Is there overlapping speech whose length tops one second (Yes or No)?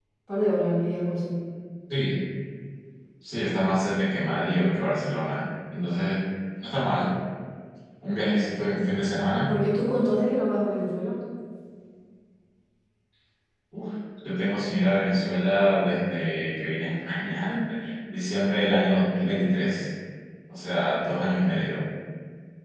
No